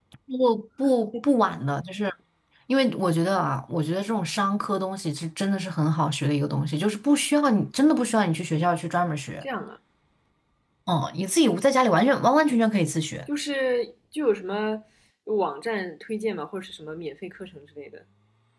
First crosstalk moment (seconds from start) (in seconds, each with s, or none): none